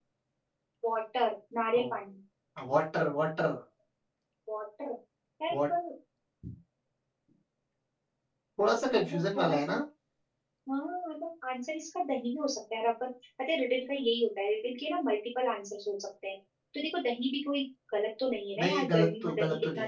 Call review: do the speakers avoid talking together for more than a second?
No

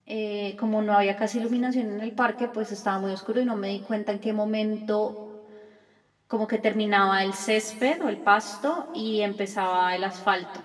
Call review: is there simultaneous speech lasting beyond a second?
No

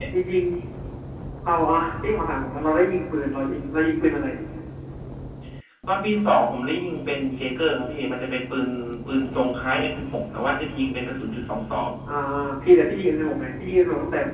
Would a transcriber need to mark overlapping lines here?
No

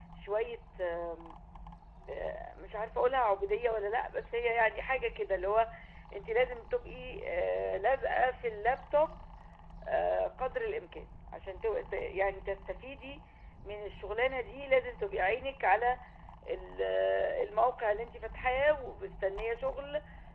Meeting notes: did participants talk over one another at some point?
No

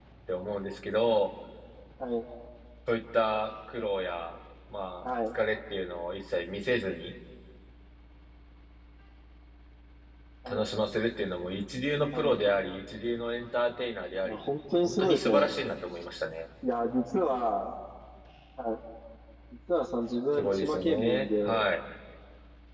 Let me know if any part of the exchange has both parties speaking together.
Yes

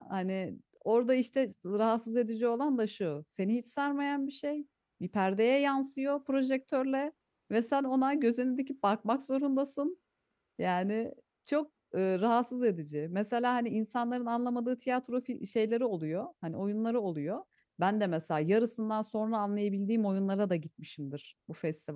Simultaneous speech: No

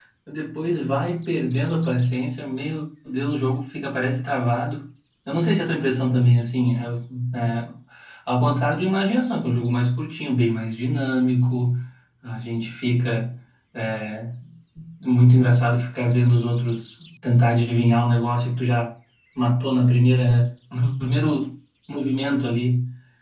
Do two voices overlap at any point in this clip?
No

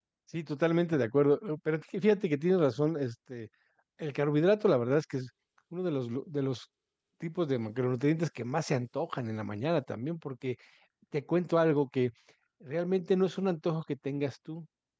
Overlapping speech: No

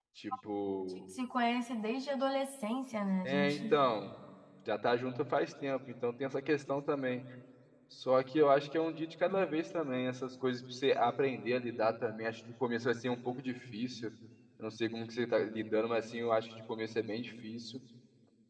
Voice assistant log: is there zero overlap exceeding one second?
Yes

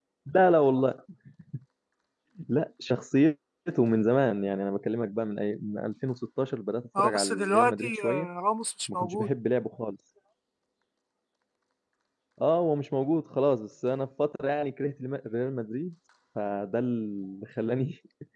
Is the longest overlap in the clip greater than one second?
Yes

